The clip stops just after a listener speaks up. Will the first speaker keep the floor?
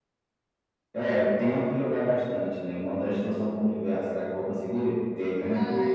No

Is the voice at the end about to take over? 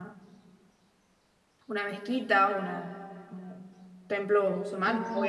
No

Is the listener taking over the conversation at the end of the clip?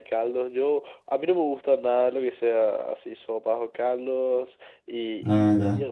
No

